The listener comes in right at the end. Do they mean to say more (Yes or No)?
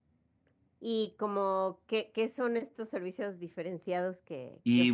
Yes